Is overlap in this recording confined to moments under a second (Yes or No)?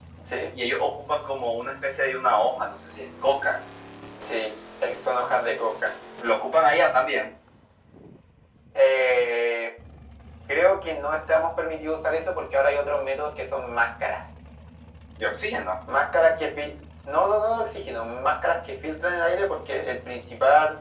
Yes